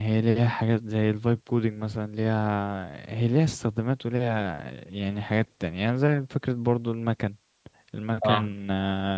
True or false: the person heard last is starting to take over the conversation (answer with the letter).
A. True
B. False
B